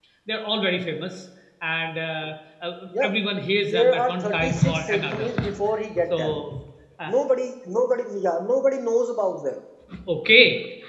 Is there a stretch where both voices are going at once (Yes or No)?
Yes